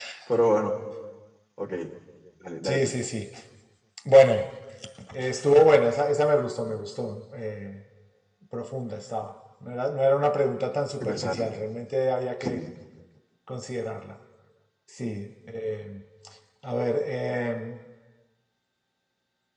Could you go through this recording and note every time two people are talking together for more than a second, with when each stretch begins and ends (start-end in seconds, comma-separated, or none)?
none